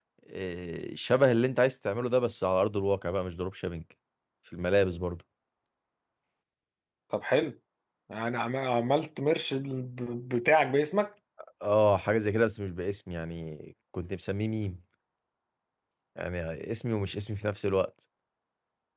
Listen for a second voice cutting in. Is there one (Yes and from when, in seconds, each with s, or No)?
No